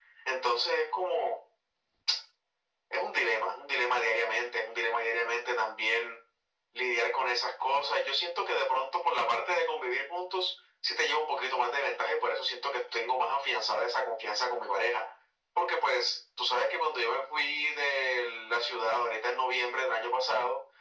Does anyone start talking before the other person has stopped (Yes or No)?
No